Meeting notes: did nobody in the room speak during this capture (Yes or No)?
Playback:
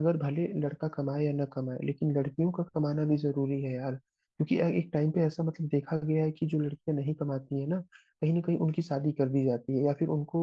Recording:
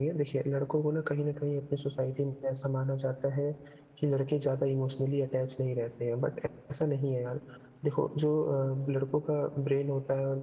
No